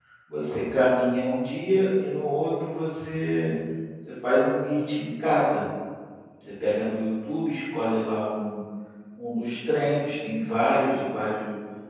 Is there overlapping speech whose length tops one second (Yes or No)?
No